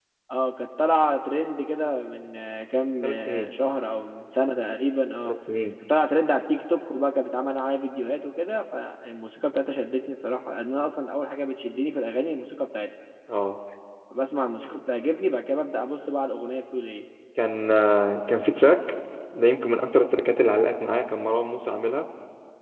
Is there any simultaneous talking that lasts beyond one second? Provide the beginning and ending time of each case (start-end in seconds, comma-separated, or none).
none